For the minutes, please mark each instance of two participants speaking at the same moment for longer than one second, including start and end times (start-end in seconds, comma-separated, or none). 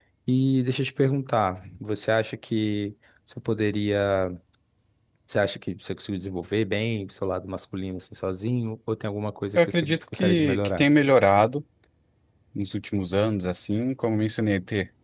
9.6-10.8